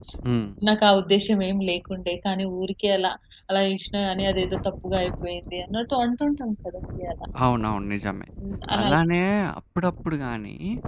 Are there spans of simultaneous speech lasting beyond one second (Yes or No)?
No